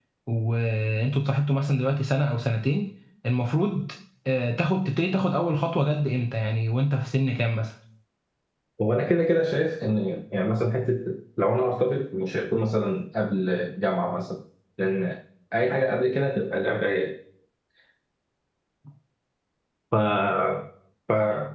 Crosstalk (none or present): none